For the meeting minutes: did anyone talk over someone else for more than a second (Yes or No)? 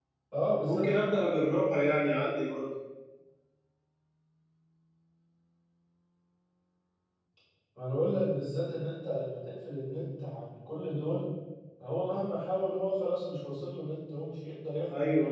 No